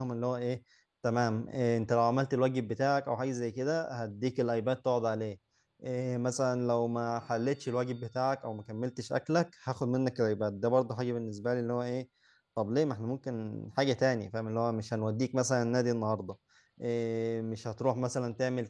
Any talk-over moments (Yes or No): No